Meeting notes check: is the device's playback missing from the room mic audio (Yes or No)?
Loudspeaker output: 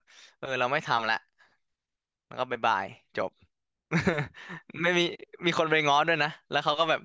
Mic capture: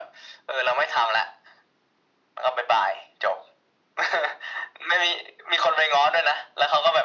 No